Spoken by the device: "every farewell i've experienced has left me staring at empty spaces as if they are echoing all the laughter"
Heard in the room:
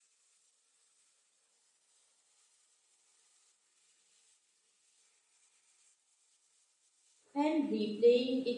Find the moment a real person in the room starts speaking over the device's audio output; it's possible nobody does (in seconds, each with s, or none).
7.3 s